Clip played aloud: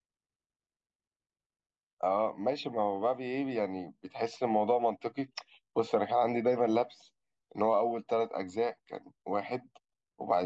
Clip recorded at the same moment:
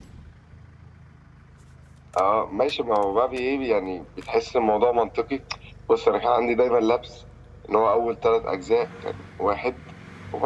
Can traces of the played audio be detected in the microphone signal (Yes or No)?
Yes